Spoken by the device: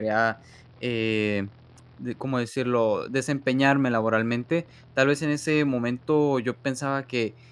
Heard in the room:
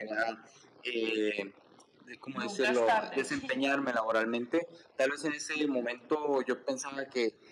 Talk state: both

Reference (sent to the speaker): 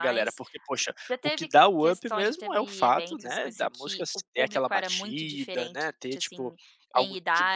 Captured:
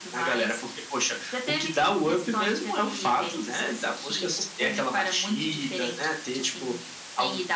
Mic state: echo only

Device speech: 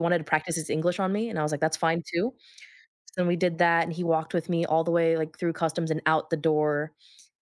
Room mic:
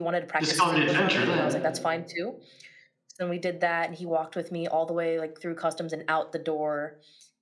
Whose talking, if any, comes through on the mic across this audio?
both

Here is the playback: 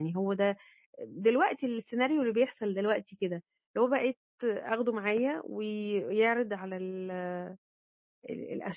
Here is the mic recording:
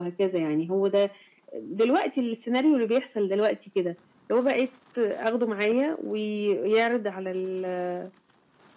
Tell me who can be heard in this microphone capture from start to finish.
echo only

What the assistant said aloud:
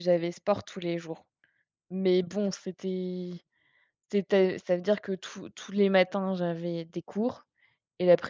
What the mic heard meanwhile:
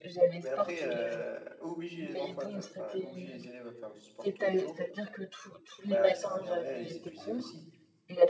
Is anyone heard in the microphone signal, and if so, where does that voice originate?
both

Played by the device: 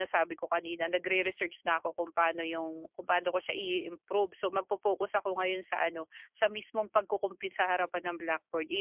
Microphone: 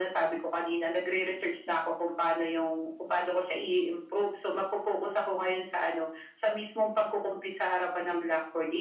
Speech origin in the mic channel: echo only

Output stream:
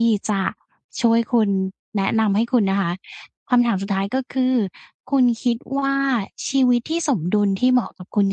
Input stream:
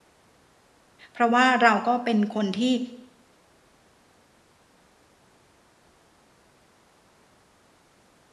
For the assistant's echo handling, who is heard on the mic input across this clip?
user only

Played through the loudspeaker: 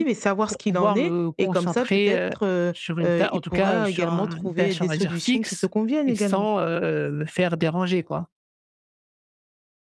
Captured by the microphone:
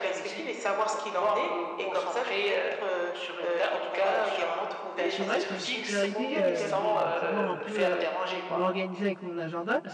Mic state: both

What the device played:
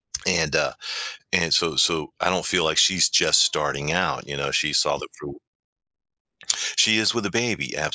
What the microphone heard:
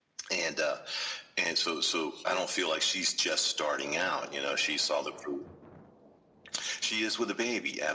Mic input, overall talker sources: both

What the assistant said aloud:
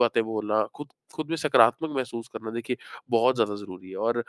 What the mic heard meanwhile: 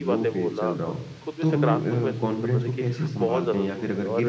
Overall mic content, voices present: both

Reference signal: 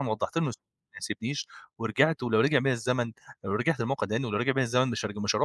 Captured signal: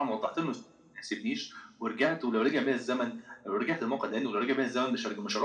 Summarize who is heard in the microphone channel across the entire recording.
echo only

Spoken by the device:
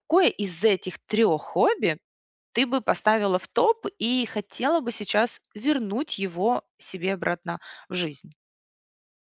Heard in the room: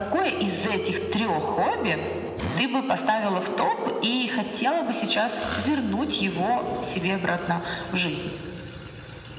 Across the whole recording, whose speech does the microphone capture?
echo only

